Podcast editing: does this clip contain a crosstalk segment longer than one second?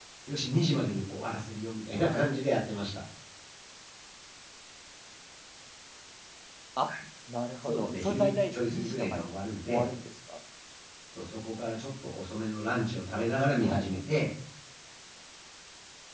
Yes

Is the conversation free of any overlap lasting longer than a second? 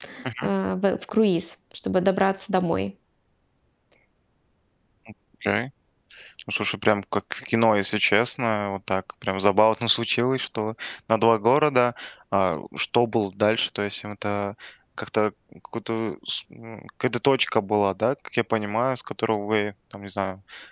Yes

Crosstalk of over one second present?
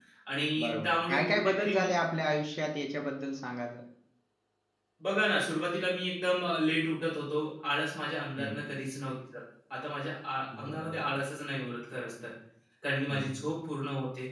Yes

